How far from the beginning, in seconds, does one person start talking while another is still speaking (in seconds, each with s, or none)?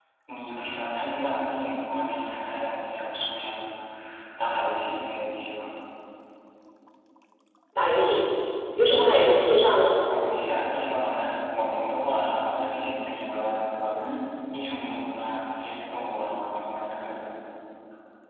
none